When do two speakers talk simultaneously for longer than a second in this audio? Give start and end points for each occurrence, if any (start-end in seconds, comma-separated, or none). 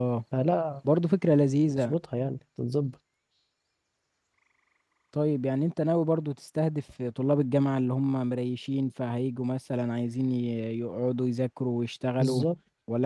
none